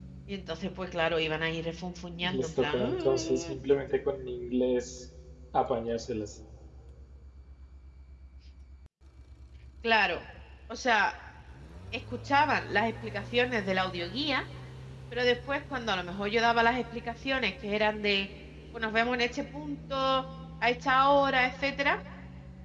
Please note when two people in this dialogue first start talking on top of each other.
2.2 s

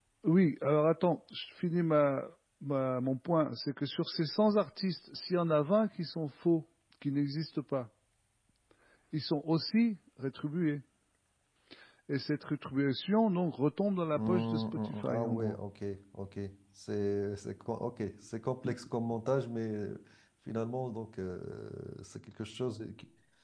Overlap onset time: 14.1 s

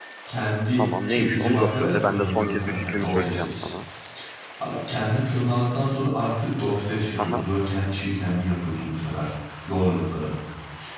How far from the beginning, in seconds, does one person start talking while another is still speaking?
0.8 s

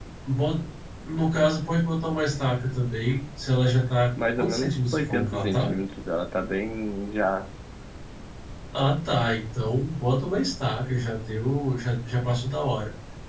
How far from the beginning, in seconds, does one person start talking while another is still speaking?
4.2 s

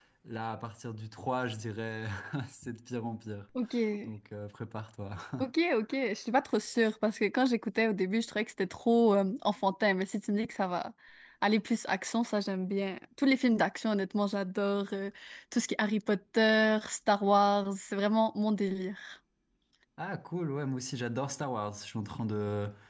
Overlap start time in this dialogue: none

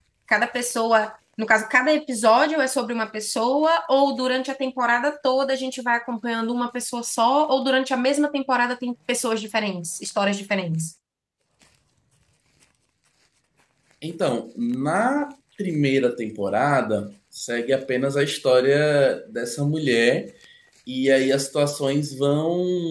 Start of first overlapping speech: none

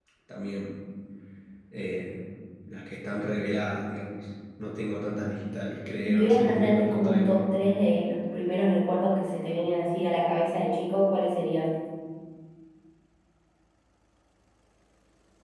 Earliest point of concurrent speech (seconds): 6.0 s

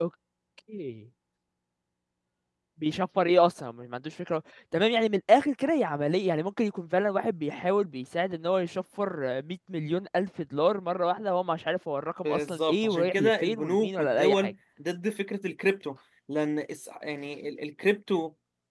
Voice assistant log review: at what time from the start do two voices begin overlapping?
12.2 s

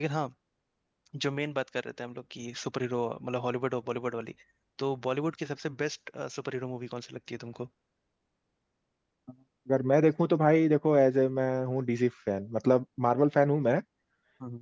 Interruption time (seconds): none

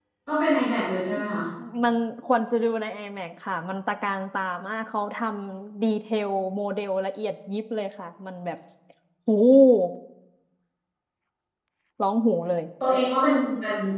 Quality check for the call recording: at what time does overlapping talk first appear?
none

